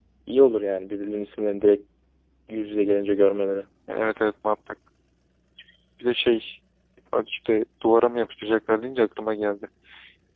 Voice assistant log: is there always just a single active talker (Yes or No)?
Yes